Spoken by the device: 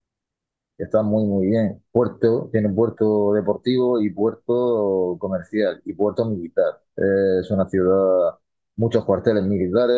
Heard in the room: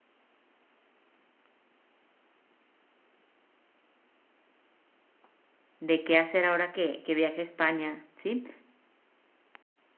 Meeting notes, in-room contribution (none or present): present